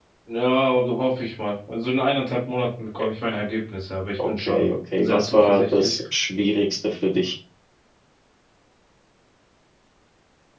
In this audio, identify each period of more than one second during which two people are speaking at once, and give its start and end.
4.3-6.0

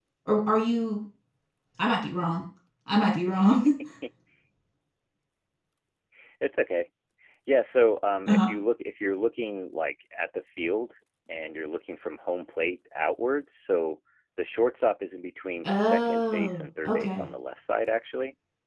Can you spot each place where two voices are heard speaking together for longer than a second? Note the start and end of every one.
15.6-17.3

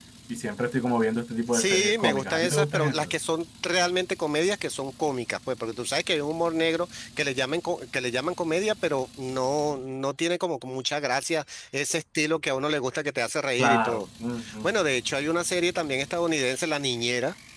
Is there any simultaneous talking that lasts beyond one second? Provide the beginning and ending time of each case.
1.5-3.1

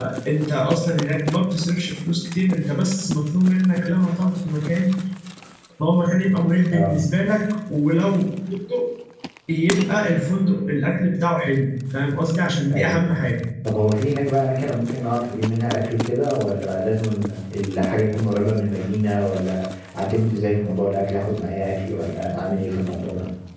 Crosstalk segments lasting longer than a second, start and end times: none

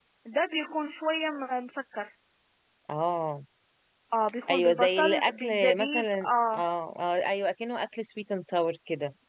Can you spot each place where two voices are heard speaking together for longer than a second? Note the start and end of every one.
4.5-6.6

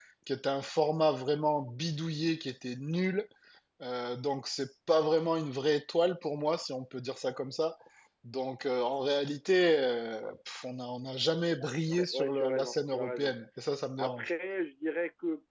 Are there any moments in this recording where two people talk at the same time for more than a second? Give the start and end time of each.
11.9-13.3

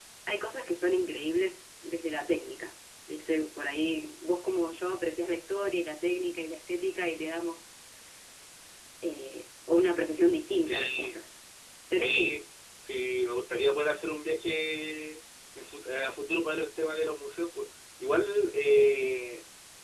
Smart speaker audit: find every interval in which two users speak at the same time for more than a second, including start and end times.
none

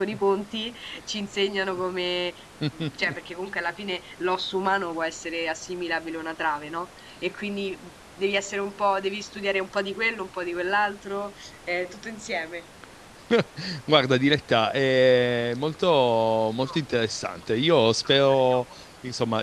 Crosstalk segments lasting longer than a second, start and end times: none

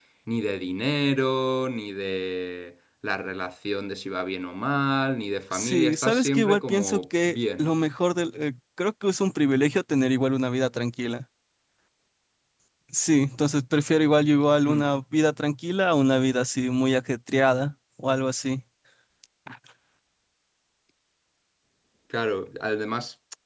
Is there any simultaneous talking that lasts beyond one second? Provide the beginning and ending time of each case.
5.5-7.7

